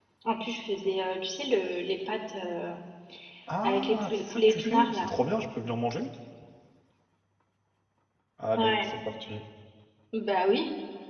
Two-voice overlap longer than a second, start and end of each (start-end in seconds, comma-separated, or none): 3.6-5.1